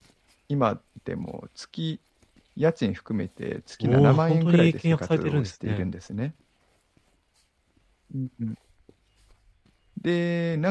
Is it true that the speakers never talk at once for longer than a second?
No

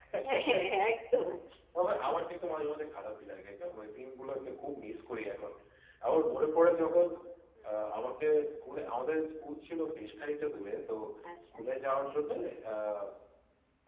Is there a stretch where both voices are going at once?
No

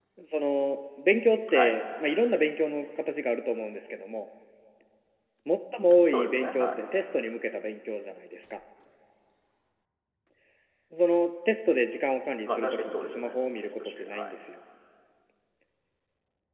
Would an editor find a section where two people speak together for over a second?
Yes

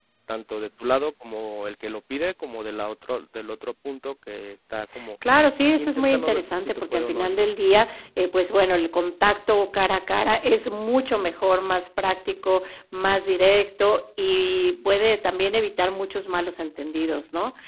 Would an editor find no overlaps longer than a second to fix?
No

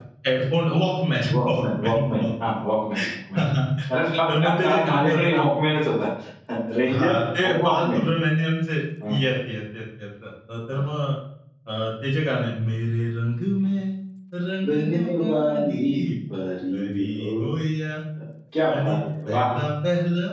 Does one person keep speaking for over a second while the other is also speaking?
Yes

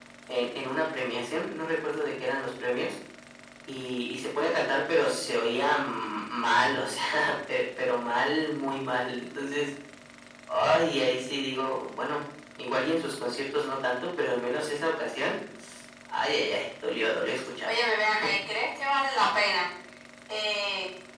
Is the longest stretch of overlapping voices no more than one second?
Yes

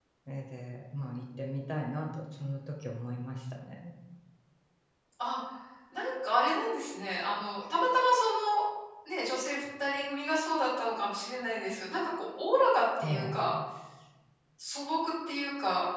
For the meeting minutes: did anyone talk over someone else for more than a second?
No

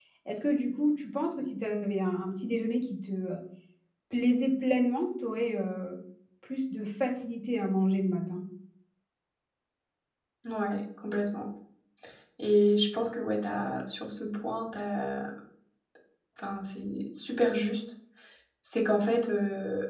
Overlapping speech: No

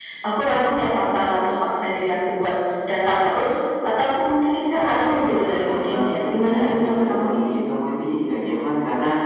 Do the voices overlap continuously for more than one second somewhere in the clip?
Yes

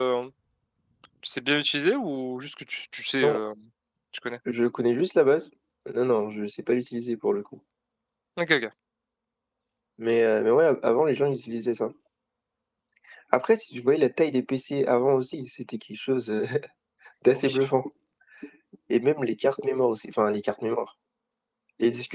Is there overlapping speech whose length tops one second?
No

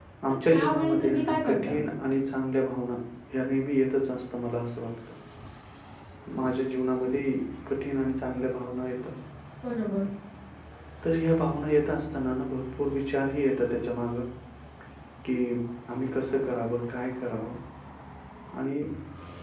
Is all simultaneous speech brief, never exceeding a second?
No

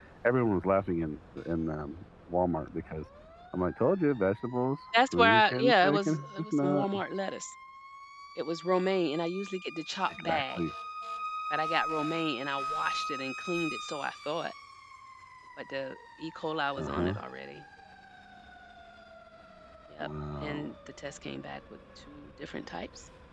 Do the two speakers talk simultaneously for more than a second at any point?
Yes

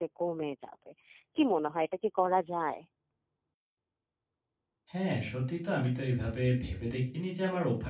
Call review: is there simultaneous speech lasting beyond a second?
No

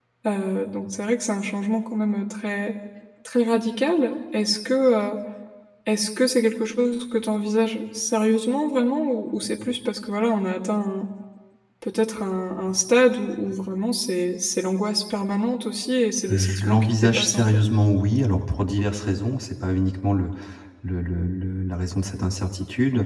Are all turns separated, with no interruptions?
No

